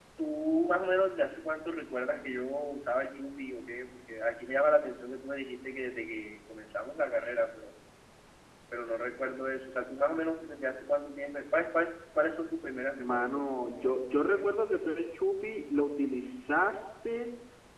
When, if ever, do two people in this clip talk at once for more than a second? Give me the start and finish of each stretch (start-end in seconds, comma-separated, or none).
13.0-14.4